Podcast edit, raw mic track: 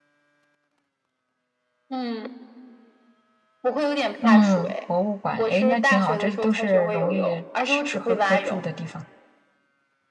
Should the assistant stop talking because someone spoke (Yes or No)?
Yes